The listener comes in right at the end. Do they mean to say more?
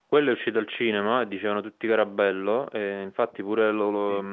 No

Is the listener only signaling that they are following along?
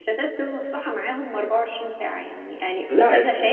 Yes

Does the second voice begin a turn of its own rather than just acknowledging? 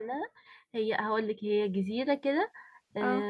No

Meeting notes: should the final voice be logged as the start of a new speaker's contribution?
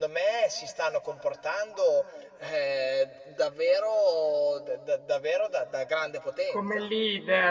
Yes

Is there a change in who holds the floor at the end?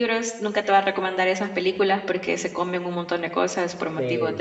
Yes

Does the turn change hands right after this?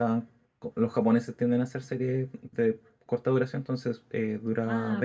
Yes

